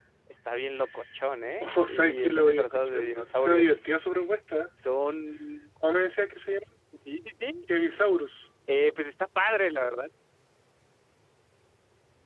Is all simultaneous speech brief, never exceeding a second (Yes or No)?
No